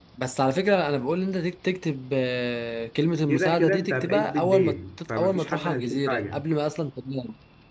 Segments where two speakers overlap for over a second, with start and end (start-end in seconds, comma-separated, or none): 3.3-6.4